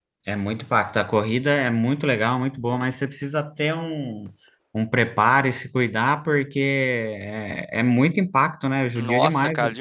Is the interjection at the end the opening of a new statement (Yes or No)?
Yes